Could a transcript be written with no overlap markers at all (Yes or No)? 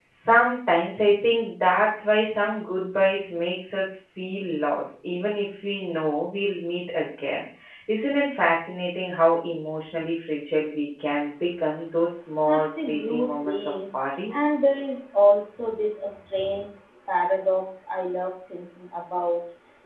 No